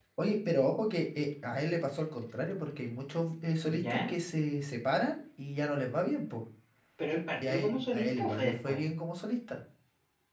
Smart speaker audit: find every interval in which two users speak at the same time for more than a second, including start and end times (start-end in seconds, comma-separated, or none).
7.4-8.8